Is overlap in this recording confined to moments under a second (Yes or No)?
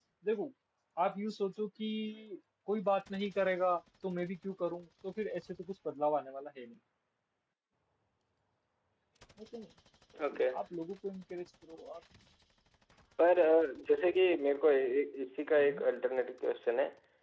Yes